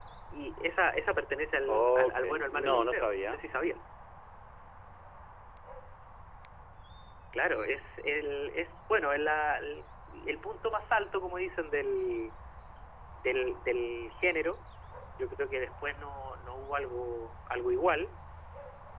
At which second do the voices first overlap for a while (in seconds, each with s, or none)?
1.6 s